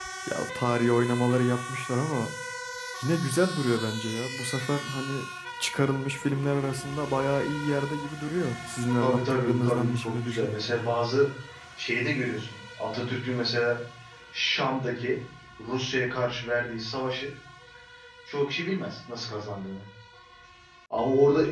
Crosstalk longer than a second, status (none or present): present